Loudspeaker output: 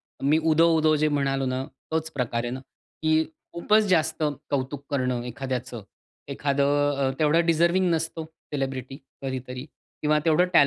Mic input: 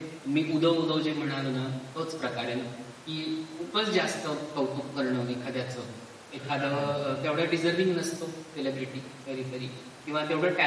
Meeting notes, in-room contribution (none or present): present